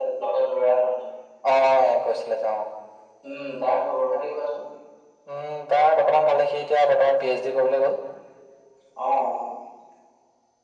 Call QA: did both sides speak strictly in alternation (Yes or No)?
Yes